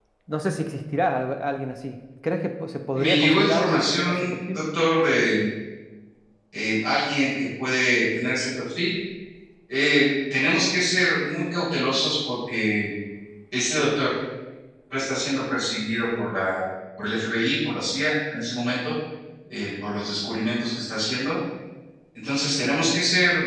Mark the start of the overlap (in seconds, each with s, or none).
3.0 s